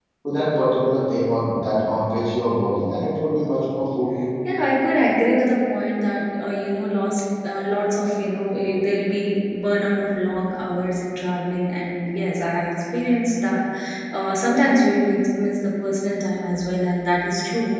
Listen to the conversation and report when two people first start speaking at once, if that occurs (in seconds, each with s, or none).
none